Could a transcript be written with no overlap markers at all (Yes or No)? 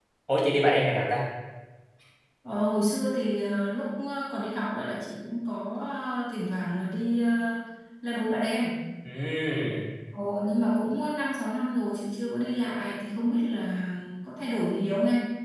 Yes